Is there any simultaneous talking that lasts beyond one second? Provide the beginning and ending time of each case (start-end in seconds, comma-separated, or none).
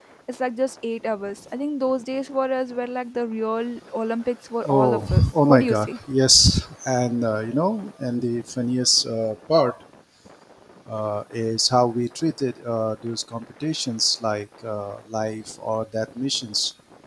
4.7-6.0